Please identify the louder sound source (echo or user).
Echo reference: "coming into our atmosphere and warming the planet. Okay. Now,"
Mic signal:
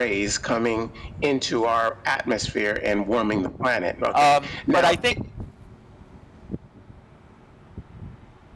user